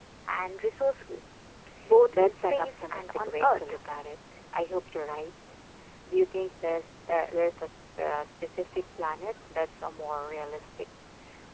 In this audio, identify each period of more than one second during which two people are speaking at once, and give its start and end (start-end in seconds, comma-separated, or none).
2.1-3.6